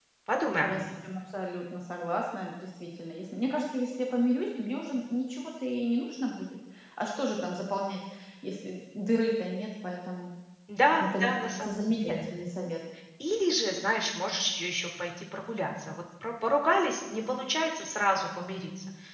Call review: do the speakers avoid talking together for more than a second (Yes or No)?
No